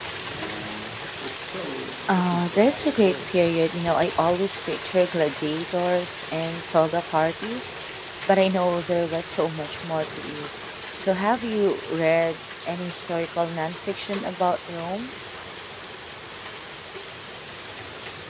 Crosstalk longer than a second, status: present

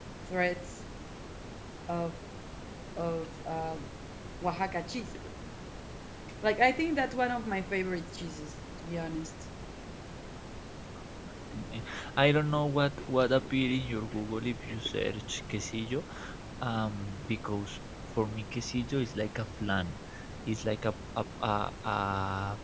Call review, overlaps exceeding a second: none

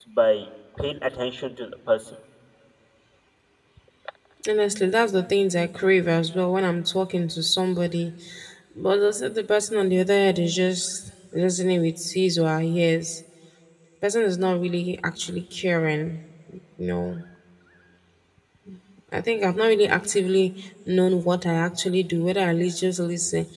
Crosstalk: none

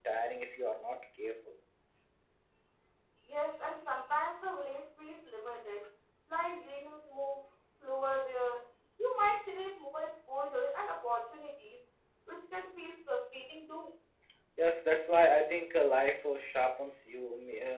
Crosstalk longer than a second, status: none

